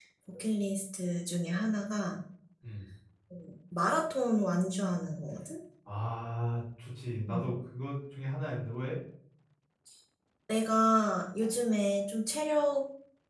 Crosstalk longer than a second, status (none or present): none